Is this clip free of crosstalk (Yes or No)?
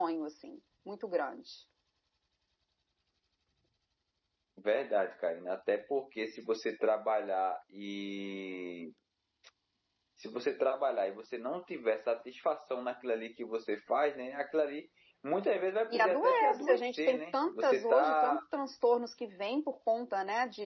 No